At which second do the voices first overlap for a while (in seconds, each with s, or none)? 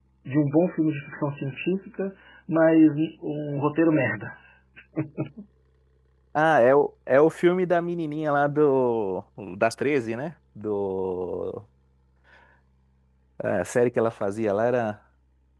none